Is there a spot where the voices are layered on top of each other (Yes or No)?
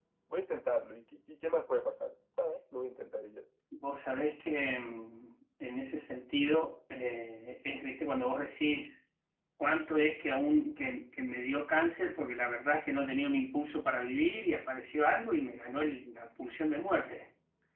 No